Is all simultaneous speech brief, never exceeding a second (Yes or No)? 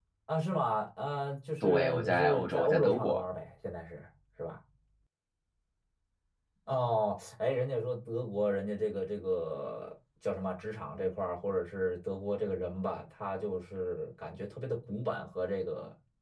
No